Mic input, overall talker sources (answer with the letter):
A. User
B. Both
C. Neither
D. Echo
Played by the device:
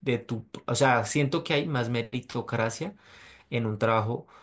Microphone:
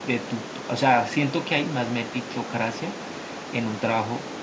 D